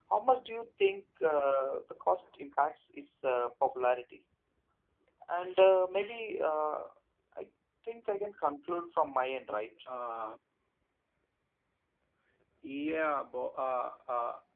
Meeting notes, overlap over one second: none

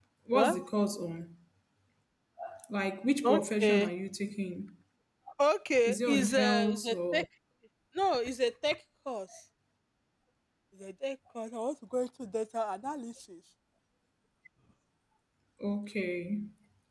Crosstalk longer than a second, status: present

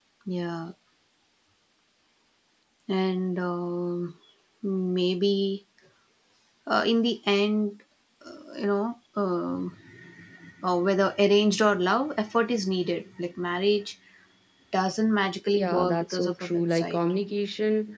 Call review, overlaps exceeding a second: present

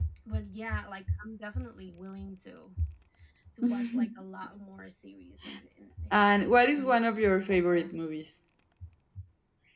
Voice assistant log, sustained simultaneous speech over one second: present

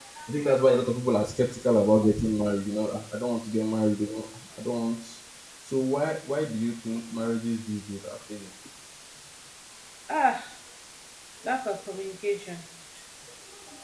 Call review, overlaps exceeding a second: none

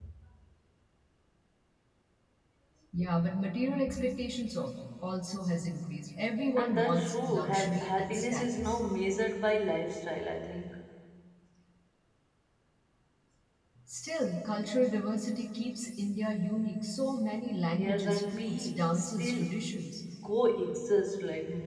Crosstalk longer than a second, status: present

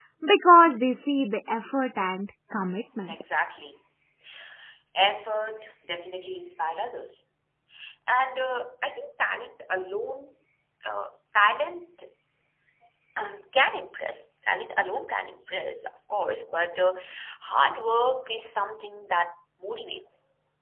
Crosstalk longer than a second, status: none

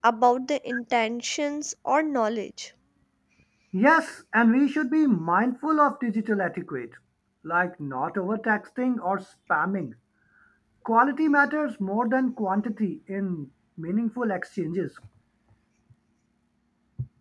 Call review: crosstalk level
none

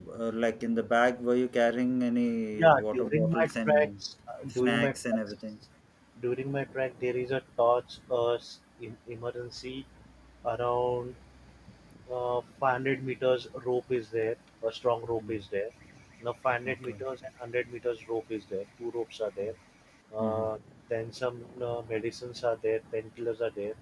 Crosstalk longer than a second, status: present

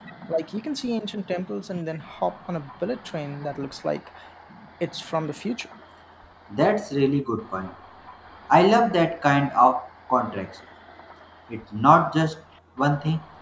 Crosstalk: none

